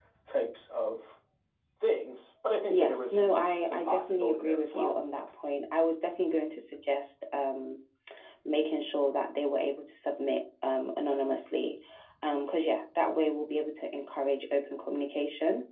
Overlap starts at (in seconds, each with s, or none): 2.7 s